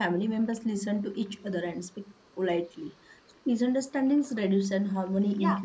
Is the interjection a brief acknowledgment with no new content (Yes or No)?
No